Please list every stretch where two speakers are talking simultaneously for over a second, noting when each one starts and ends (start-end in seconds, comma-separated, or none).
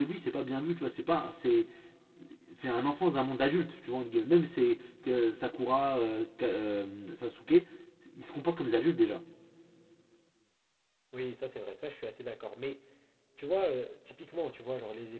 none